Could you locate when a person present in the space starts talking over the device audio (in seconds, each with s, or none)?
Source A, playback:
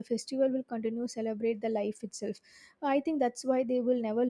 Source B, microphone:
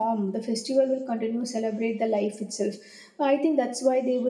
none